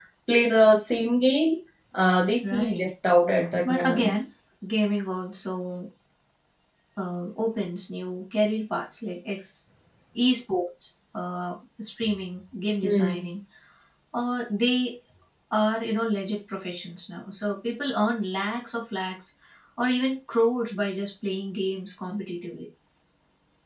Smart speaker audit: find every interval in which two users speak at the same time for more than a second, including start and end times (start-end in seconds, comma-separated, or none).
none